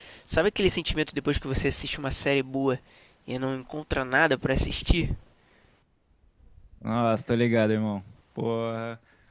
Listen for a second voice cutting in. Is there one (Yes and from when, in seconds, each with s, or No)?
No